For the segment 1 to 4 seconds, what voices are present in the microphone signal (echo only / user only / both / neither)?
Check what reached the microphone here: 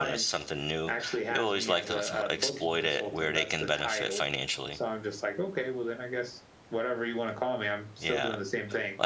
both